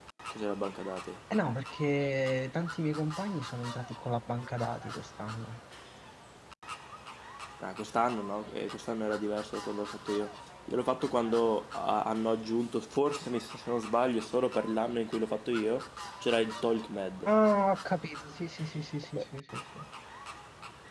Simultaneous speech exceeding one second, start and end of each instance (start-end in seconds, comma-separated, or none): none